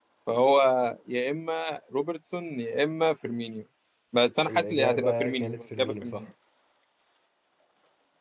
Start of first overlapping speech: 4.5 s

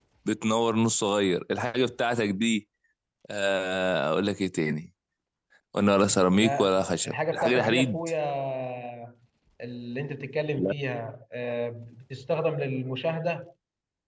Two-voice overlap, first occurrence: 6.4 s

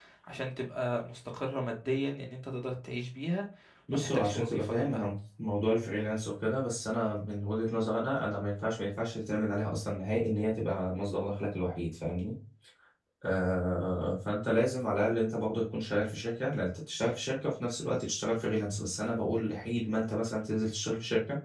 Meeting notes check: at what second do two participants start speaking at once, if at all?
3.9 s

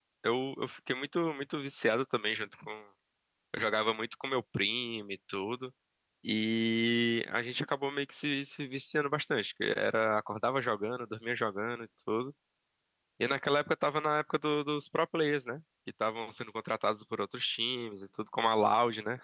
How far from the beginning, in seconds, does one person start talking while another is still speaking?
none

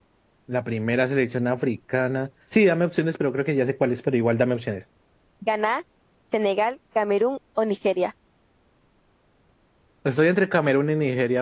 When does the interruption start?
none

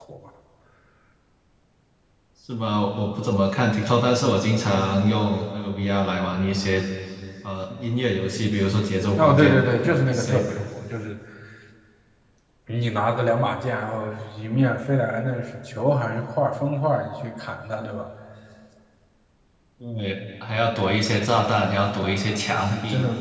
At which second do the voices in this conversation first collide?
9.2 s

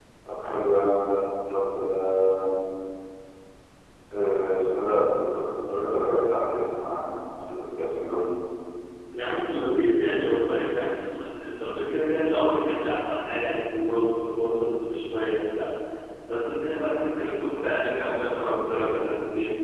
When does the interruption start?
none

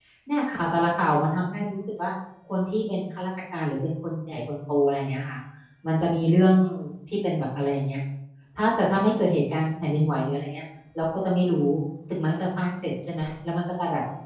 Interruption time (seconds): none

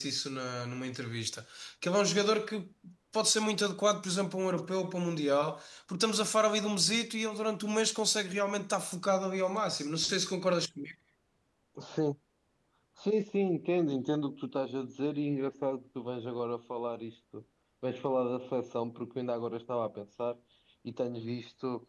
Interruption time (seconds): none

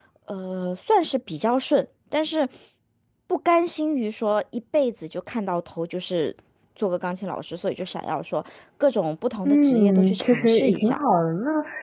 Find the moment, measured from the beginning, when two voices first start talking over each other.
9.4 s

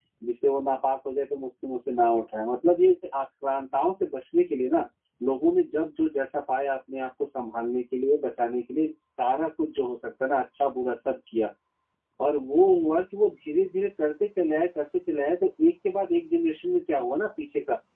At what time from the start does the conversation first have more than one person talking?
none

